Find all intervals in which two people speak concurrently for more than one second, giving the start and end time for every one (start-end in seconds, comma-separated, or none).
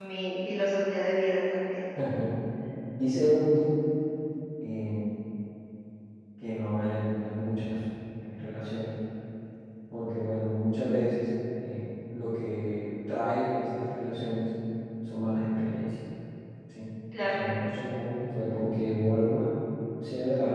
none